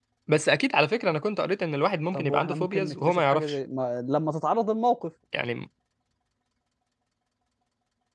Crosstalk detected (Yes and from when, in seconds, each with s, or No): Yes, from 2.1 s